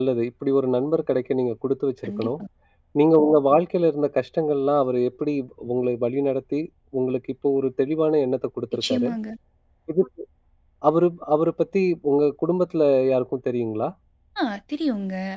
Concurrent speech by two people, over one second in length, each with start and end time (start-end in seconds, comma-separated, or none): none